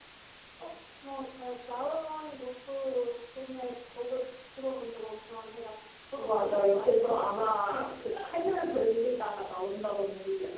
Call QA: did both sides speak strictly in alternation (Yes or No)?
No